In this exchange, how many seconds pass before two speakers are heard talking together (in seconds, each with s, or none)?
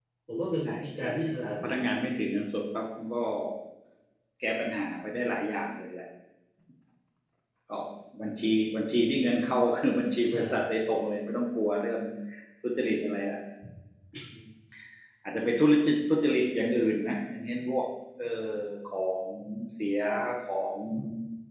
0.6 s